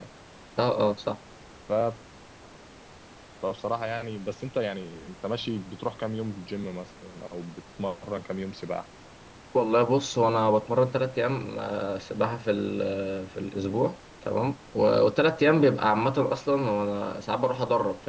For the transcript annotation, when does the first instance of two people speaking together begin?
none

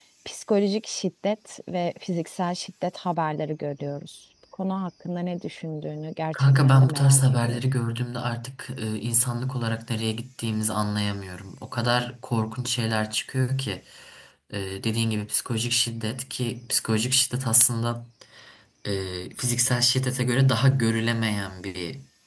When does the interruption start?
6 s

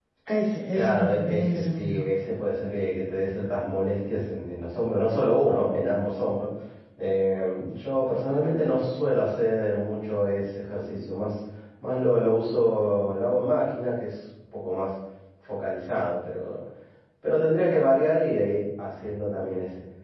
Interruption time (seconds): 1 s

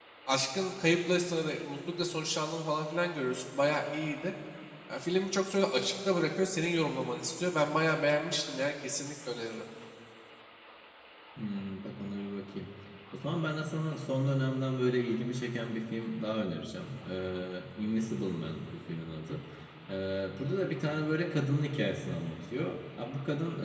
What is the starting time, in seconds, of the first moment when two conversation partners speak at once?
none

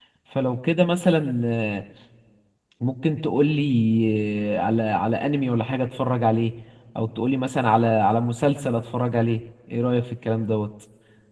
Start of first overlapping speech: none

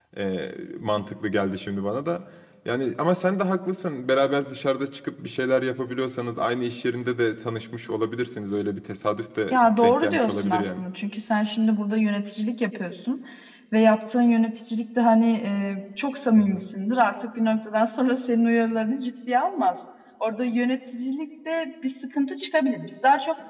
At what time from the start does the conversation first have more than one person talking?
10 s

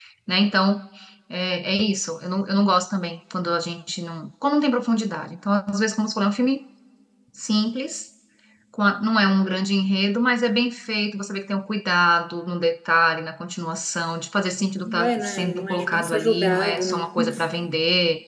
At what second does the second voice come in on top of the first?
15 s

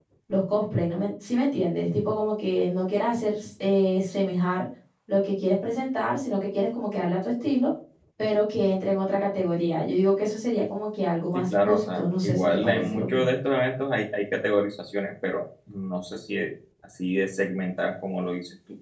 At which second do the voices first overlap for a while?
11 s

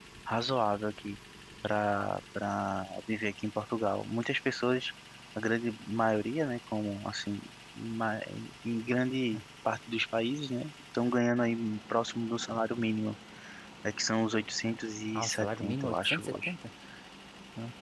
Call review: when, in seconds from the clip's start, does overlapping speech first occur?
15 s

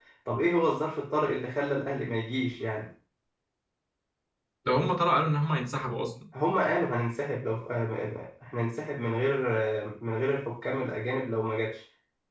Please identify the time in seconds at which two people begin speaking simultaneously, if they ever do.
none

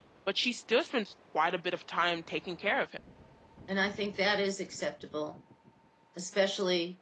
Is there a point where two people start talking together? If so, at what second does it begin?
none

